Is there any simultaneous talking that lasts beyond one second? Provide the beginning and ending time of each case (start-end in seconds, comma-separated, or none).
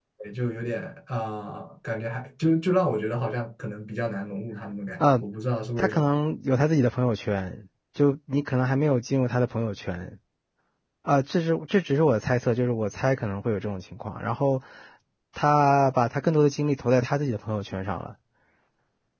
none